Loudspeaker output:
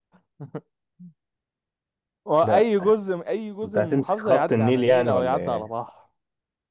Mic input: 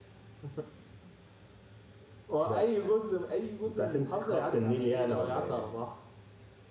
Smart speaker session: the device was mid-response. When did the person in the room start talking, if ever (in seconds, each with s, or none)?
none